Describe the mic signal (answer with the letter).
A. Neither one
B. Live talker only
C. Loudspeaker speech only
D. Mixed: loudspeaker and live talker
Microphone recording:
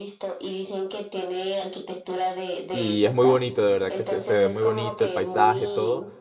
D